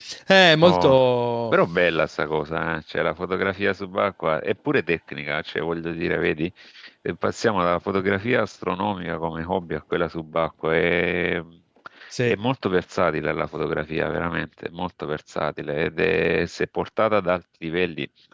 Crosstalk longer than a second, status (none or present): none